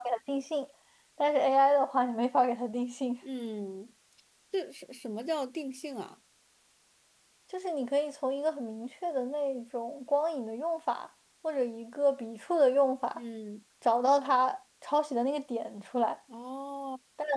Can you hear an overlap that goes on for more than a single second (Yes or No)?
No